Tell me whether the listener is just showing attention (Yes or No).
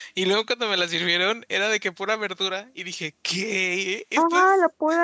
No